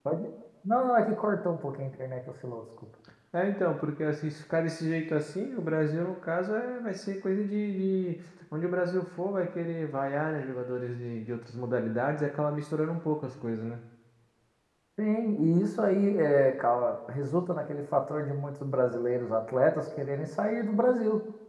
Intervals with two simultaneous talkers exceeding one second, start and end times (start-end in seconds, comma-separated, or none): none